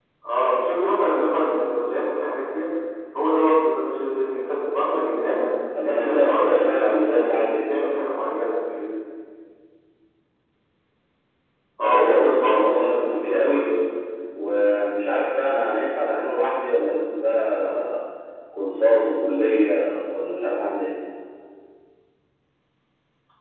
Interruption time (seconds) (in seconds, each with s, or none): 5.8 s